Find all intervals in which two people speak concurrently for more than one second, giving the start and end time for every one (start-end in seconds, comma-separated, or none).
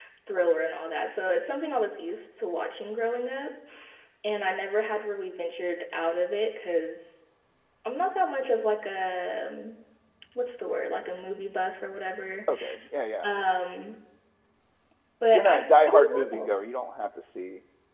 15.3-16.6